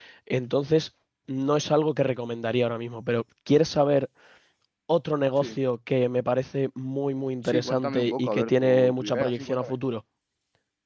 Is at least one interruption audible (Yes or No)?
Yes